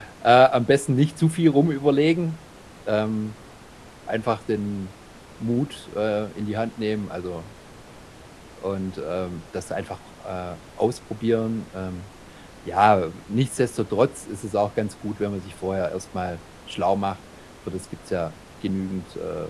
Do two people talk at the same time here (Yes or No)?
No